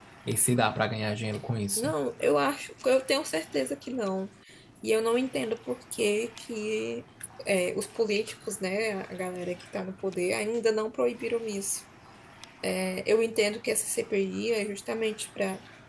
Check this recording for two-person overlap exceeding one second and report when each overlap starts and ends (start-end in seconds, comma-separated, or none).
none